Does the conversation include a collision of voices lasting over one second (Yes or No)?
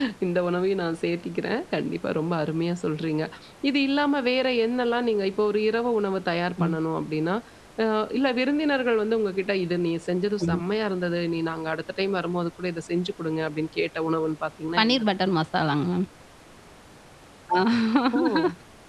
No